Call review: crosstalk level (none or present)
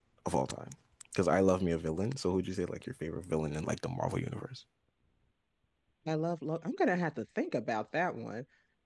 none